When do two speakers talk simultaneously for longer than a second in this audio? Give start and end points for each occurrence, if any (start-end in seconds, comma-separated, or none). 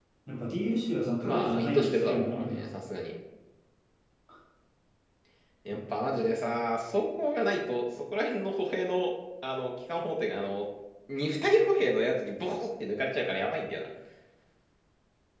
1.2-2.7